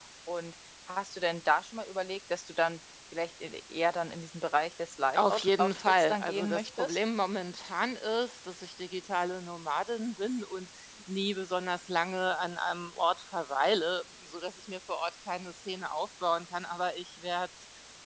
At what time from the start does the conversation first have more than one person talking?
5.1 s

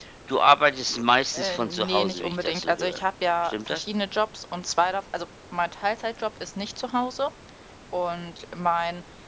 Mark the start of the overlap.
1.3 s

